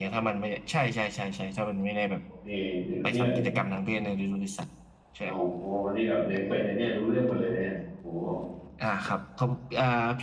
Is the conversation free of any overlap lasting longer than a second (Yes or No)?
Yes